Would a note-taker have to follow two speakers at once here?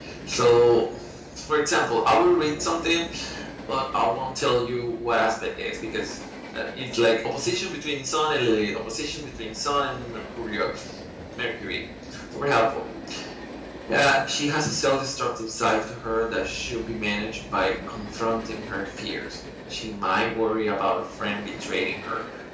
No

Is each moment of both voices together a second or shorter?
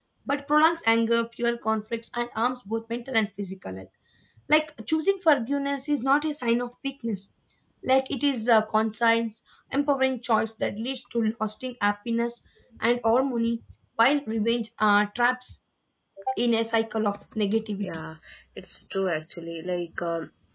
Yes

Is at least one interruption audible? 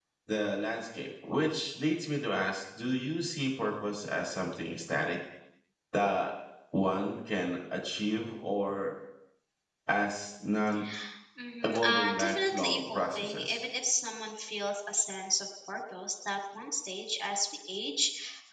Yes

